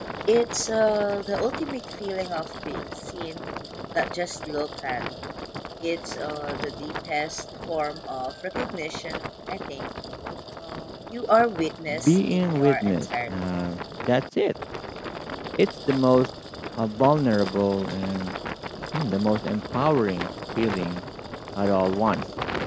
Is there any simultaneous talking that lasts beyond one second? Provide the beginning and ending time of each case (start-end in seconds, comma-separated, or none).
12.0-13.3